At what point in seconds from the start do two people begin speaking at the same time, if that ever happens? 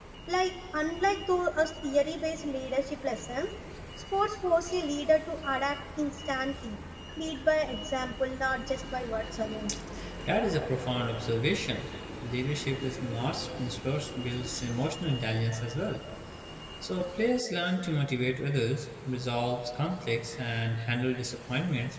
none

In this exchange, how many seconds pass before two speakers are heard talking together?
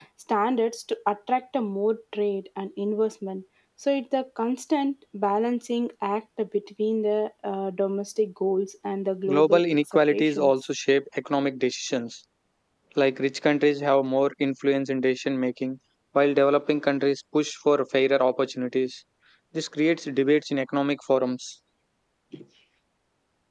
9.3 s

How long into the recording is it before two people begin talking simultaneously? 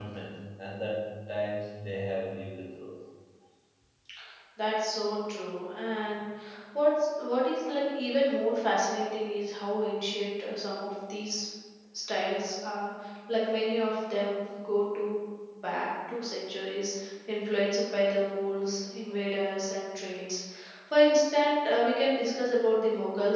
none

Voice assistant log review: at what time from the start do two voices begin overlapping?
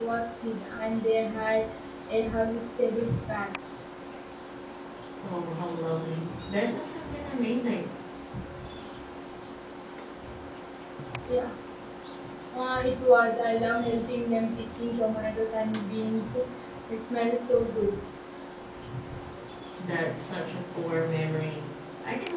none

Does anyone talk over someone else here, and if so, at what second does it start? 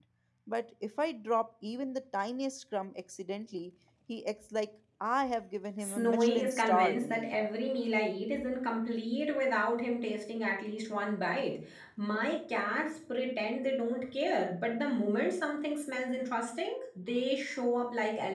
5.8 s

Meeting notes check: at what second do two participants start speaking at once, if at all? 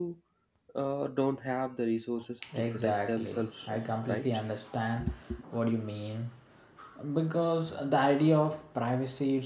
2.4 s

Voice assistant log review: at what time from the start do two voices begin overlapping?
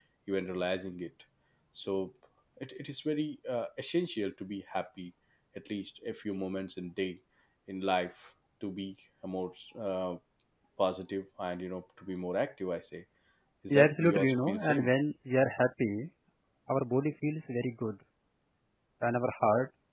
13.7 s

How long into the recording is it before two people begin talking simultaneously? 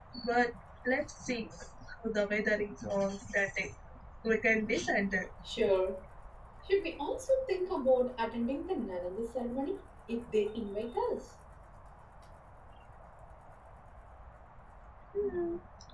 none

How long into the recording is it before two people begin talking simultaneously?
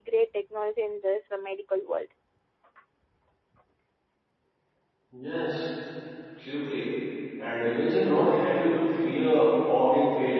none

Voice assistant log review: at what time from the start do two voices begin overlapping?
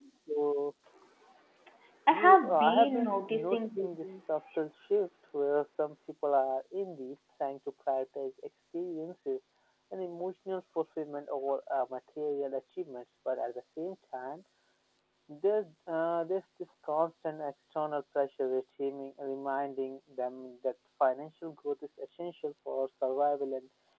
2.1 s

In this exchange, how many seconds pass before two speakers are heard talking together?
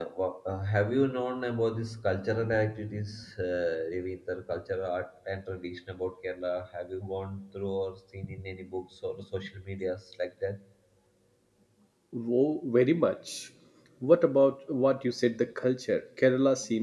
none

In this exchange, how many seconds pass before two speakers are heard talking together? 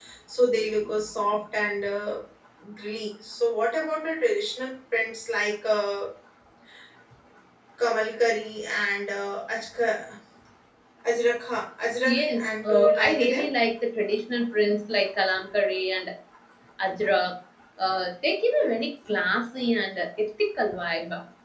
12.0 s

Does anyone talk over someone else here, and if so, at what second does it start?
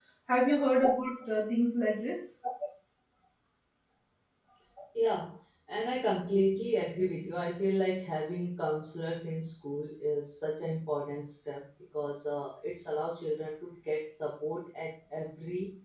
none

